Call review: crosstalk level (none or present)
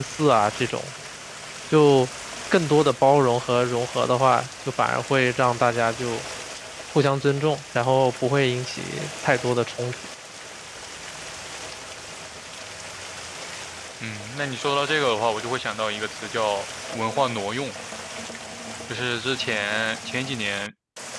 none